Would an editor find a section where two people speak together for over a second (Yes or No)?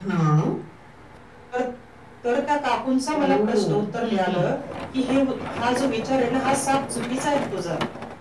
Yes